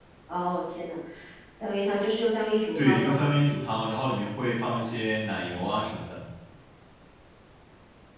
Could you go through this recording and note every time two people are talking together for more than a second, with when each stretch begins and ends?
none

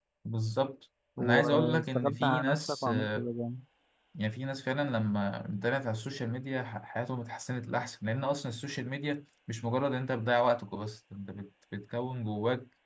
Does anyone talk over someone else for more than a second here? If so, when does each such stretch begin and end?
1.2-3.3

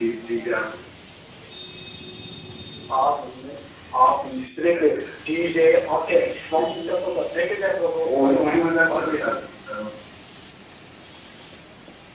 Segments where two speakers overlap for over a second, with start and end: 8.0-9.2

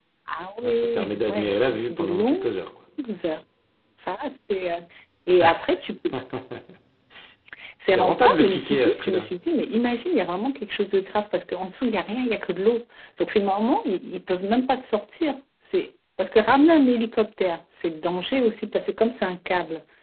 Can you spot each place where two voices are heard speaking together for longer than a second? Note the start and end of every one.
0.6-2.5, 7.8-9.3

